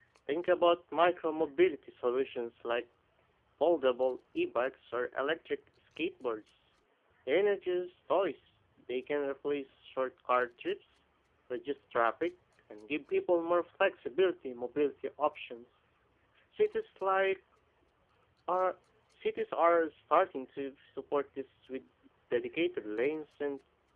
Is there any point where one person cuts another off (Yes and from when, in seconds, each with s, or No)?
No